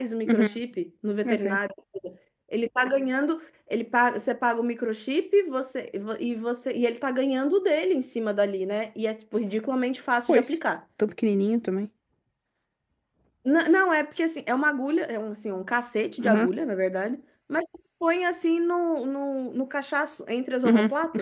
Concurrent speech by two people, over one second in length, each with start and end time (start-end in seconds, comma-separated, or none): none